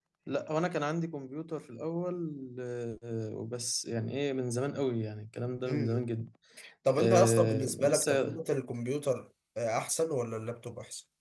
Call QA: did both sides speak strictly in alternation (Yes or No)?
No